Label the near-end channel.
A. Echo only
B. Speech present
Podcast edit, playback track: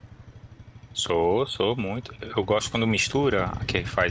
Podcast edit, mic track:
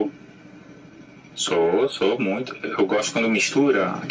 A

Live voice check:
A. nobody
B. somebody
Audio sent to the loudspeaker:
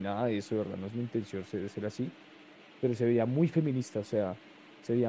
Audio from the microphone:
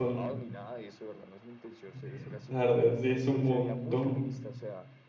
B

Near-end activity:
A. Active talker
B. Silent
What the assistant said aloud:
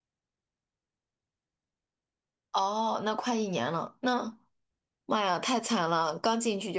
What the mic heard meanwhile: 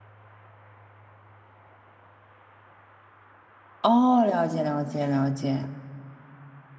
A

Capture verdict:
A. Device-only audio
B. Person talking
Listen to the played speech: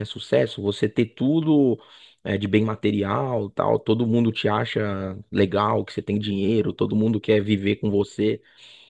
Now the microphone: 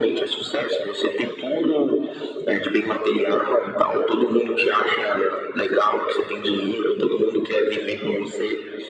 A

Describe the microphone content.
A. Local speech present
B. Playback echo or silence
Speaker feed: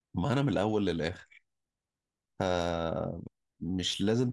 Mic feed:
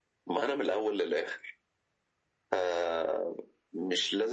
B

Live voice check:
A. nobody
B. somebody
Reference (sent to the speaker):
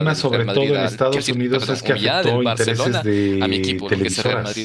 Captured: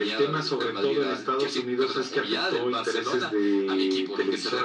A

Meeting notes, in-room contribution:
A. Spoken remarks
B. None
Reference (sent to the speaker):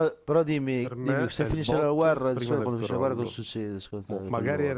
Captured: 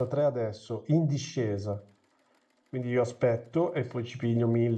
A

